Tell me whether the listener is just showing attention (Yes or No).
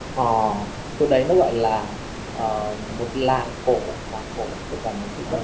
Yes